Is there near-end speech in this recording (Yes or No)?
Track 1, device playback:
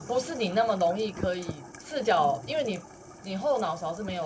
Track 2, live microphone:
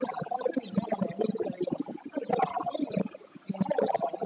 No